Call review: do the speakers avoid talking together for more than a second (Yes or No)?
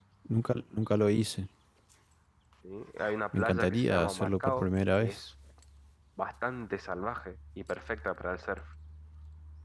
No